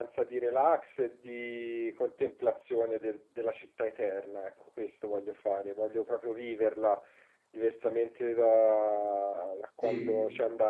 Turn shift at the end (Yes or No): No